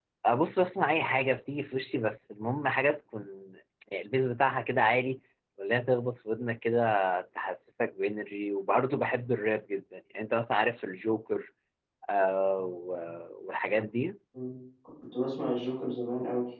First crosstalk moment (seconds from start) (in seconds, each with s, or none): none